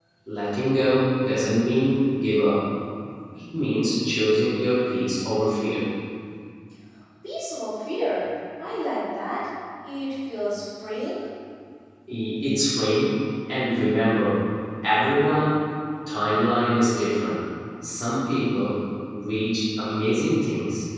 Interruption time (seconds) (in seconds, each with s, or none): none